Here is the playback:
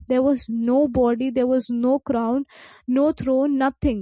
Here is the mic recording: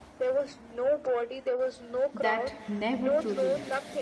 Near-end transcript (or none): that never truly left.